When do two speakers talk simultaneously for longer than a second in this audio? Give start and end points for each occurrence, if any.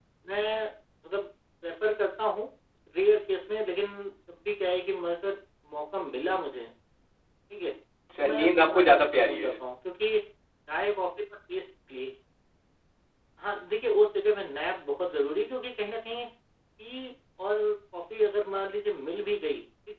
8.2-9.6

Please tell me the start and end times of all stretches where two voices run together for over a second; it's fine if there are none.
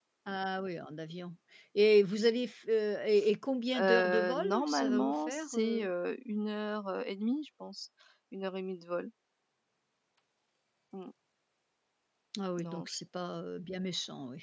3.8-5.9

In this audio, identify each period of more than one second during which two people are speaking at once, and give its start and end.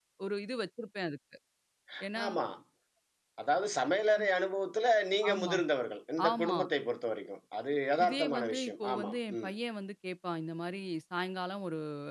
8.0-9.5

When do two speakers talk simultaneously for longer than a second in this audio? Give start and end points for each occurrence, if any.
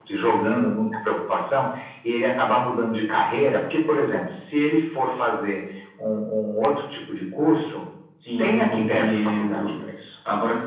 8.4-9.6

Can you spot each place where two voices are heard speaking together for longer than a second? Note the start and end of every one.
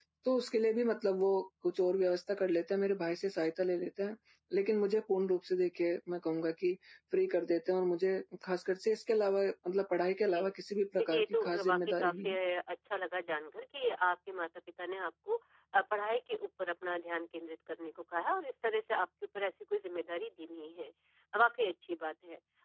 11.0-12.4

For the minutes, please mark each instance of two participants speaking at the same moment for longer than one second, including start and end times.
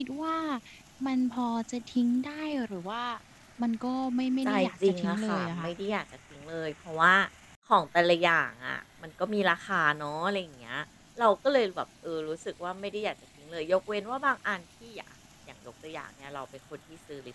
4.4-5.7

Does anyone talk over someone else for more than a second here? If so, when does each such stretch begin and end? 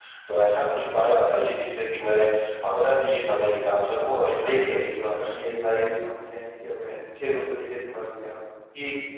4.0-5.4

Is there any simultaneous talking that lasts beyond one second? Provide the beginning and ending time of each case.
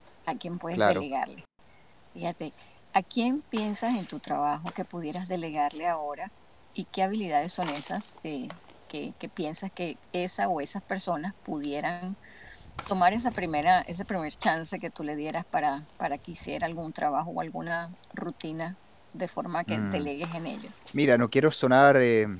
none

